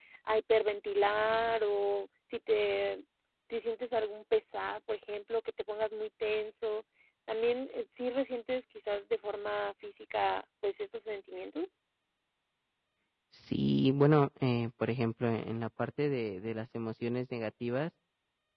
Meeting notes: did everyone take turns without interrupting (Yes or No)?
Yes